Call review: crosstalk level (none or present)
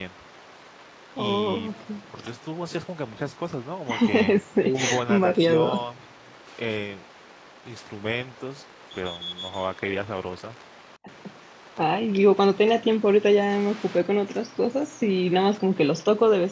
present